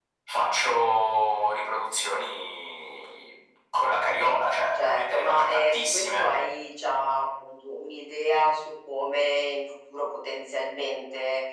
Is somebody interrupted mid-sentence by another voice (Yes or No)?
Yes